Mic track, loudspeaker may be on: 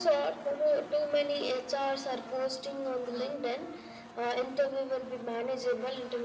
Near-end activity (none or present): none